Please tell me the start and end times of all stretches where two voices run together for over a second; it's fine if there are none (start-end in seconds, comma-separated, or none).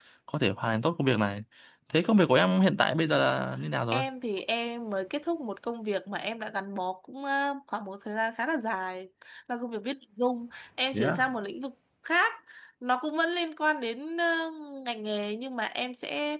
none